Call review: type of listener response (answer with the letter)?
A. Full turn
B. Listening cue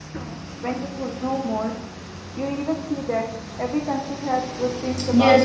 A